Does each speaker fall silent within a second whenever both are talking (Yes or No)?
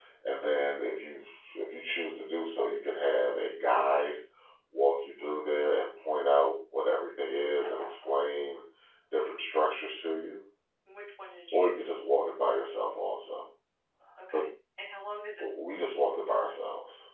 Yes